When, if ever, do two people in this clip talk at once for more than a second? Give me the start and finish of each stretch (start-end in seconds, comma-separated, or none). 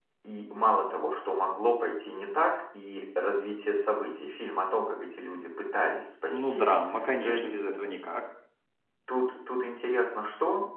none